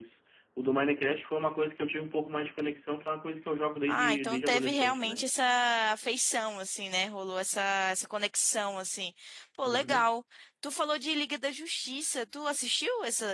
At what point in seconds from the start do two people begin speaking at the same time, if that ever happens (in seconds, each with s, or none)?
3.9 s